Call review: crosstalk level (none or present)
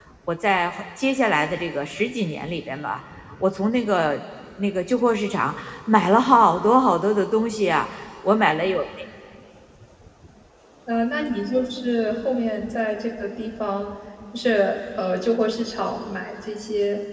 none